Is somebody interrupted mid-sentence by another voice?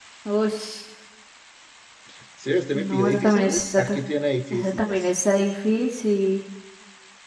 Yes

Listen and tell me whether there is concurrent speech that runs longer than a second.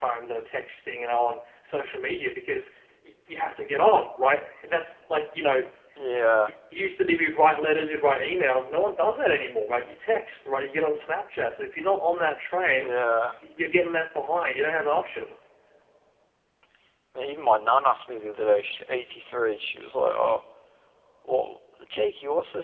No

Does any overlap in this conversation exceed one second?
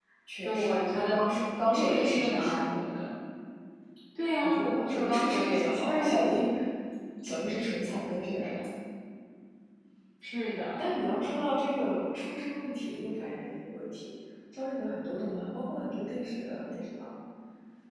Yes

